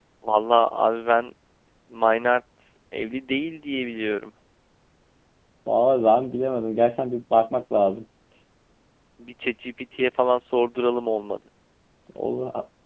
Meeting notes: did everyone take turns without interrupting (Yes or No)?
Yes